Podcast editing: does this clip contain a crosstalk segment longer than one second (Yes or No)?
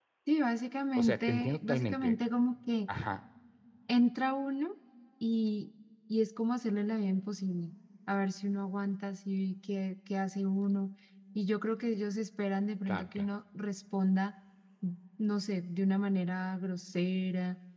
Yes